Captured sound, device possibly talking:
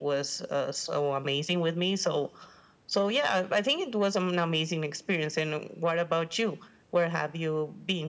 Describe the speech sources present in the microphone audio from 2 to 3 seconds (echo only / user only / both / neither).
echo only